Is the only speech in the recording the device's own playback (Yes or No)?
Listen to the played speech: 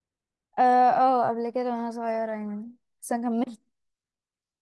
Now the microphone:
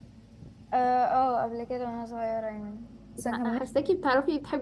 No